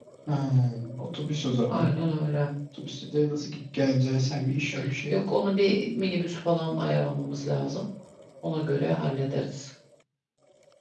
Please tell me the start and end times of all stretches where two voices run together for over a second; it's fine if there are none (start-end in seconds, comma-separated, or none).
none